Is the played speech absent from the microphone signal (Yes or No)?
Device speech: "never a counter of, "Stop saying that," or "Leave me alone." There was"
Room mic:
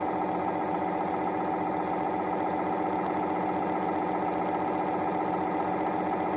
Yes